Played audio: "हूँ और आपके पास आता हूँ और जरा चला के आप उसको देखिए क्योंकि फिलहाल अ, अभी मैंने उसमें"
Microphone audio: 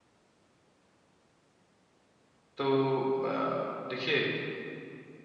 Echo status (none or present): none